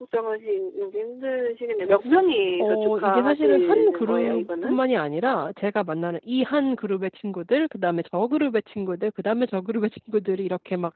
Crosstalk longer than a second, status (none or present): present